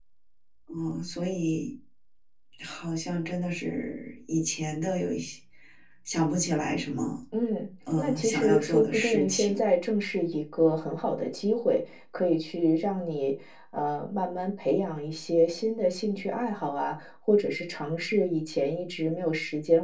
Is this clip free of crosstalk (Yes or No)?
No